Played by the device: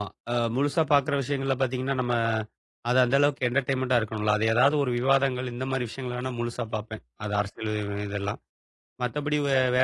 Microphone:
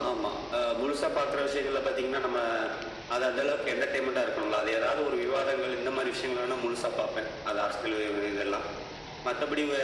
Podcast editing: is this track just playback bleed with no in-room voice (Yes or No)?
Yes